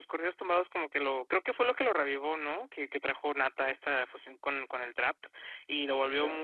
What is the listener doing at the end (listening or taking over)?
listening